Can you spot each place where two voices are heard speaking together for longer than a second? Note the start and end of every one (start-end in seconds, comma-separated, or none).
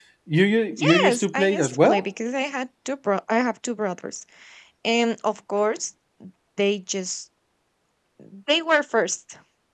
0.7-2.0